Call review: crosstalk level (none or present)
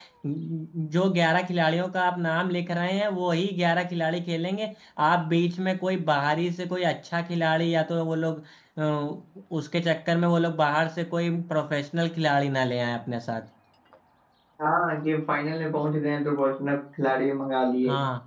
none